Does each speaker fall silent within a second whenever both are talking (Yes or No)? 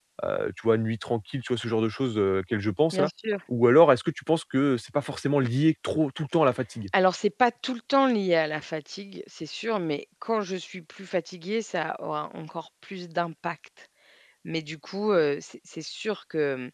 Yes